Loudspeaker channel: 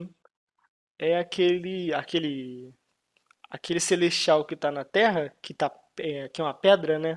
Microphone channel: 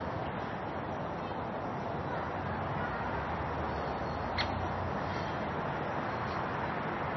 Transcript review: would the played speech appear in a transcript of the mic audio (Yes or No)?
No